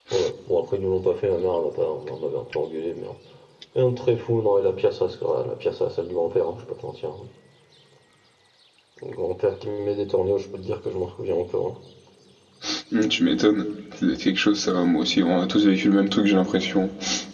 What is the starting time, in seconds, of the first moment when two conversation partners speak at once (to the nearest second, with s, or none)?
none